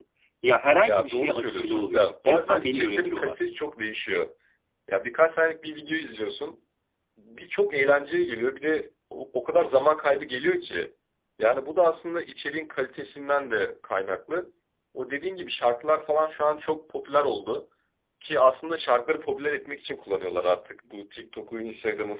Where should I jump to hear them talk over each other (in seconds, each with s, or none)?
0.8 s